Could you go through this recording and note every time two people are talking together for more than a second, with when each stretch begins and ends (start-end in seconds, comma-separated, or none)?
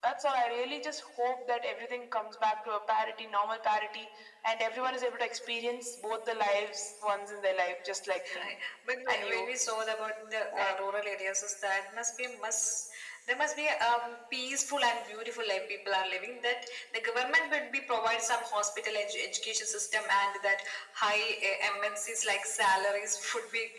none